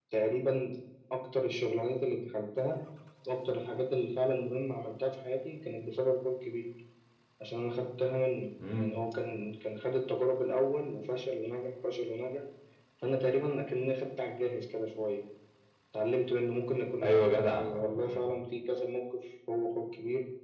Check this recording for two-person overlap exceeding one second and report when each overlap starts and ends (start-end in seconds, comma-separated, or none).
17.0-18.2